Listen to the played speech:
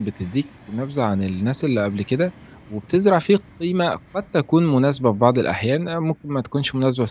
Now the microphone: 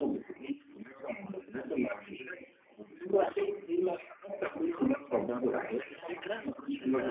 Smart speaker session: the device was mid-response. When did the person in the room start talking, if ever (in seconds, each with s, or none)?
5.9 s